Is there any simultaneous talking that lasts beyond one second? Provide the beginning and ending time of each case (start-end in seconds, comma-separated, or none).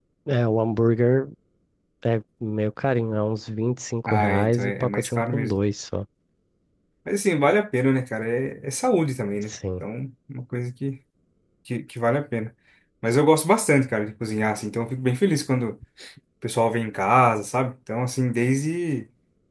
4.1-5.6